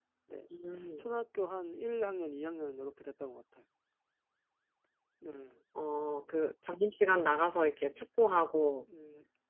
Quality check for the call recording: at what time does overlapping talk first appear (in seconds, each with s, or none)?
none